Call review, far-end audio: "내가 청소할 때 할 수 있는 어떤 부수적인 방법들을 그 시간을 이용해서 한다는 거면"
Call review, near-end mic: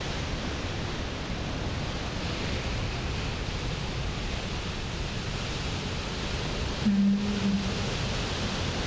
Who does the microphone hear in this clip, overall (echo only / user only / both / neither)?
user only